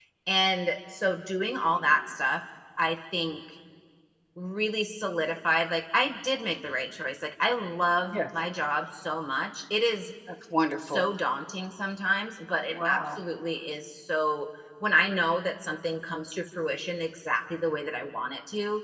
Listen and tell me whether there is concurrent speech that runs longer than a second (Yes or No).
No